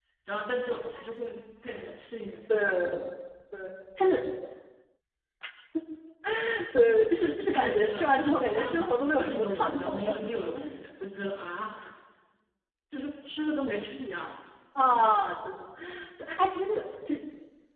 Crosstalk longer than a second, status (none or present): present